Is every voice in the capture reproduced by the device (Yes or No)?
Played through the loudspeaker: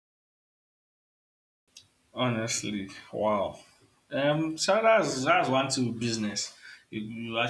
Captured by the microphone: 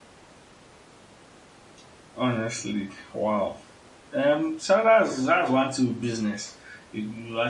Yes